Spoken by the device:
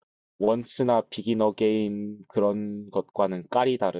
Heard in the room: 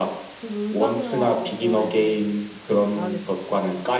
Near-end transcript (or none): 저도 음악 영화 되게 좋아해서 한번 봐야겠네요, 이것도.